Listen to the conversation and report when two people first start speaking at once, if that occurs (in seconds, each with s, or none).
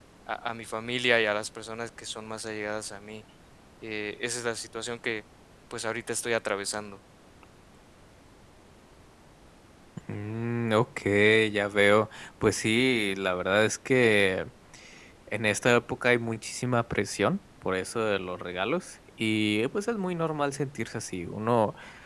none